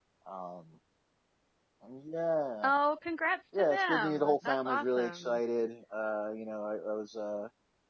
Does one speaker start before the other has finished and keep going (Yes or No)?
Yes